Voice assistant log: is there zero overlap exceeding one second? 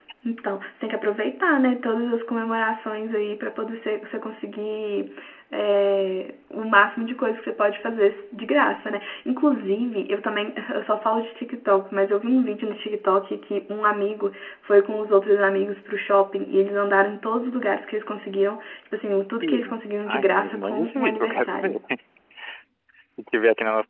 No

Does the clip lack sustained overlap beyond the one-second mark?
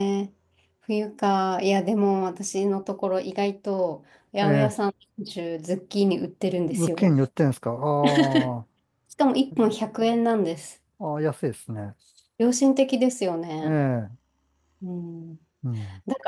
Yes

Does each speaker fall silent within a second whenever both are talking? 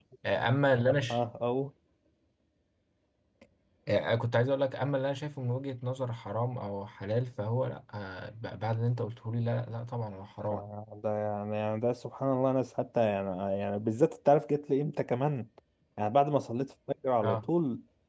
Yes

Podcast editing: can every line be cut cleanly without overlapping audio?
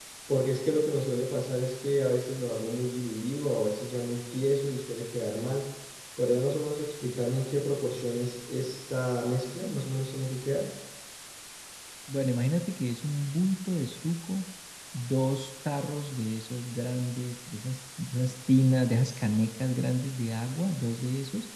Yes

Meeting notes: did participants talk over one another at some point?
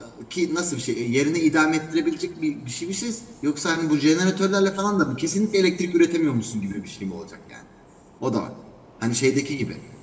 No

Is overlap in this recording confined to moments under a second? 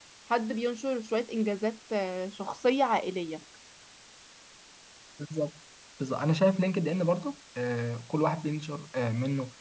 Yes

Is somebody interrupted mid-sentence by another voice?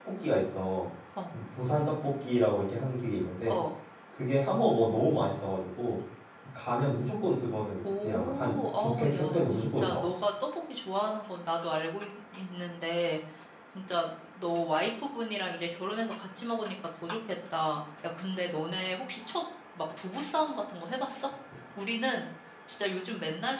Yes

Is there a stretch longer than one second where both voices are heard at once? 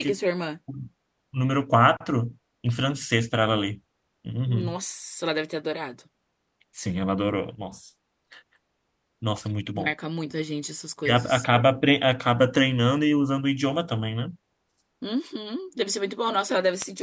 No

